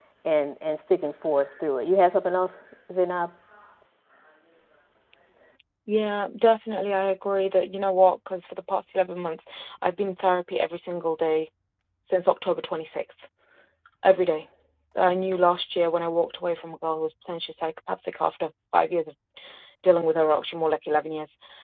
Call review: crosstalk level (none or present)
none